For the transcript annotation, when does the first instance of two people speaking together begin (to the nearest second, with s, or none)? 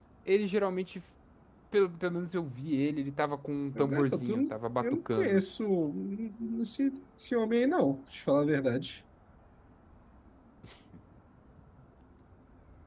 4 s